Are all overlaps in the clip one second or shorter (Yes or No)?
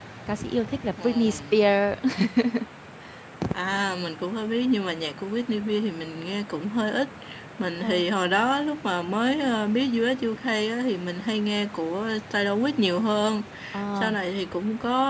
Yes